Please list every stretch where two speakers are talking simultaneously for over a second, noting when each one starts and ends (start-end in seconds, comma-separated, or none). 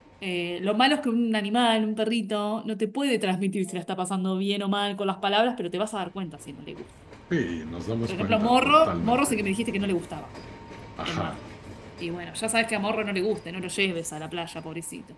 8.1-9.4